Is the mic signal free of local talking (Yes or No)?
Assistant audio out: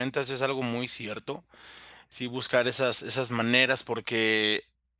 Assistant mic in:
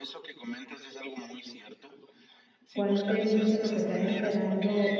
No